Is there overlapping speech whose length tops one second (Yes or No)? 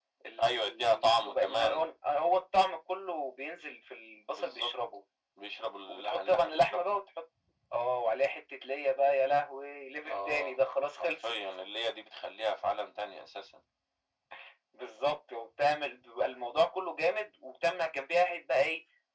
Yes